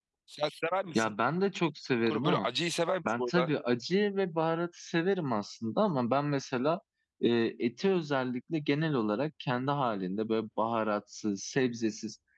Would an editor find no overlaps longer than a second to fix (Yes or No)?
Yes